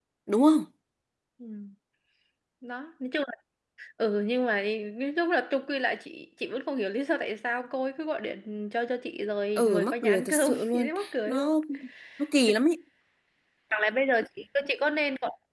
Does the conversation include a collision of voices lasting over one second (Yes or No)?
Yes